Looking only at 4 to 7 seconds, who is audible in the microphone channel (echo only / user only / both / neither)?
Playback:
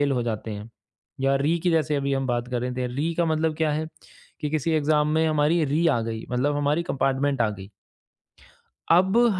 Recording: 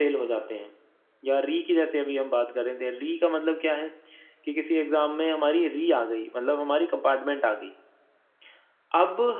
echo only